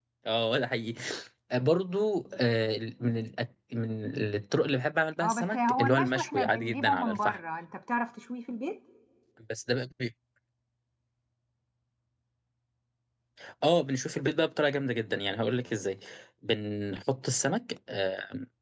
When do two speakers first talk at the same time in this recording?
5.2 s

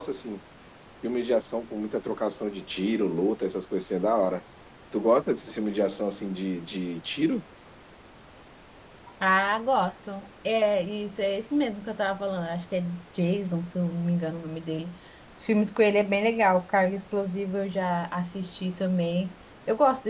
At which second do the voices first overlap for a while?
none

